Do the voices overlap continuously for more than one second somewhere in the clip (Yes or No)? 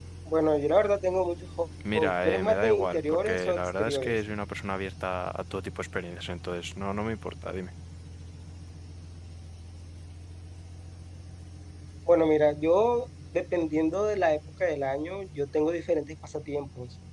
Yes